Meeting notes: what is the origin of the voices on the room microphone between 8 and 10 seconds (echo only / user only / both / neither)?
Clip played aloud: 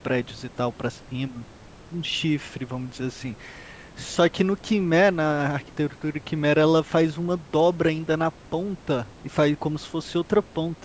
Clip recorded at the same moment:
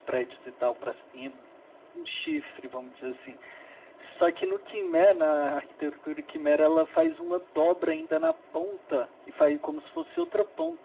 echo only